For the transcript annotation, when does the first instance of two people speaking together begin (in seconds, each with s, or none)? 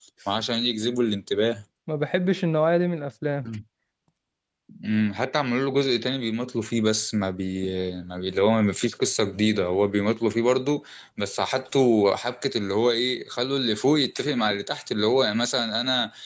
none